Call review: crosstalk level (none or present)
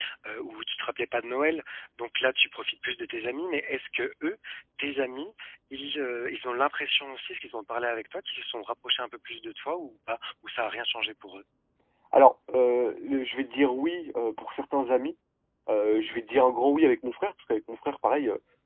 none